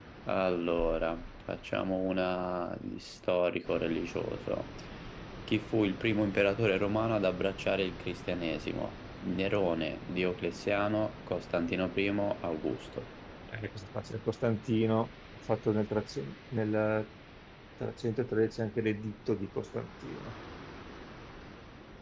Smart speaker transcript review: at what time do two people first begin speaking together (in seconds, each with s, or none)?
none